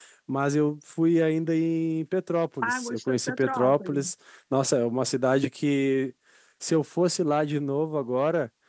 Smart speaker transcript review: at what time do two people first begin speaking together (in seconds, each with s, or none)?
2.6 s